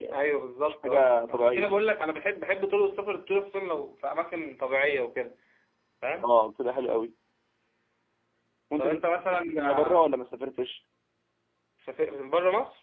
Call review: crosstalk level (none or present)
present